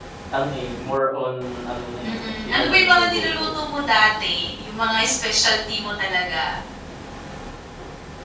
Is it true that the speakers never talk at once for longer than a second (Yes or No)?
No